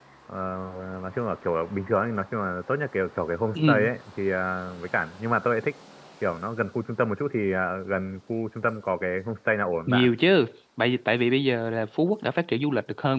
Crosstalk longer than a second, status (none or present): none